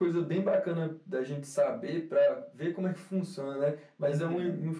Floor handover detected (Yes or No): No